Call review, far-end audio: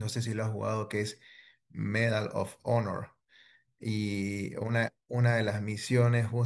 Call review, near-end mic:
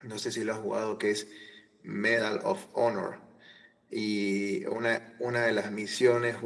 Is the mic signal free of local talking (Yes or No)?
Yes